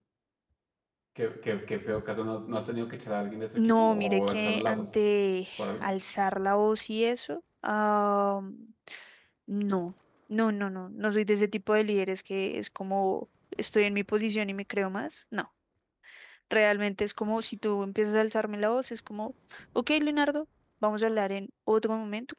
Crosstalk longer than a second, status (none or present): present